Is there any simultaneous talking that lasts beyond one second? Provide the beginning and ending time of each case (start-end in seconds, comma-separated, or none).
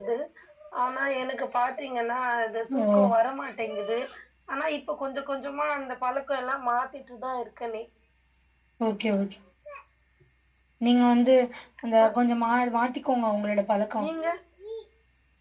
none